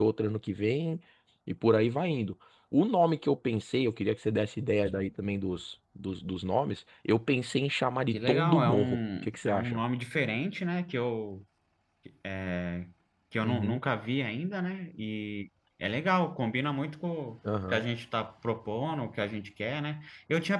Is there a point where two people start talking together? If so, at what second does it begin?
8.1 s

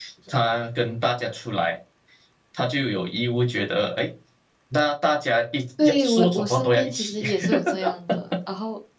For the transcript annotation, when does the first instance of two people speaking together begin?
5.8 s

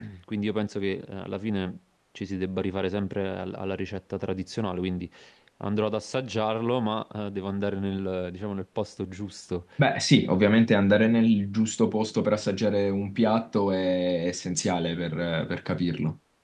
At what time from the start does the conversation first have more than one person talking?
none

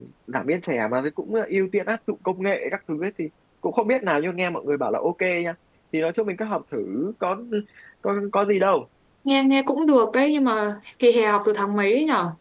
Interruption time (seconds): none

